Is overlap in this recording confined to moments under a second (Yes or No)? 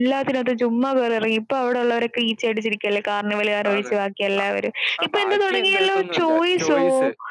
No